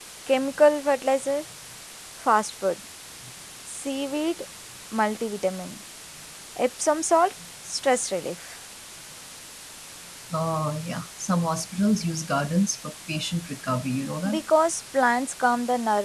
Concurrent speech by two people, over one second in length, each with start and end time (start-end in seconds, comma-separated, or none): none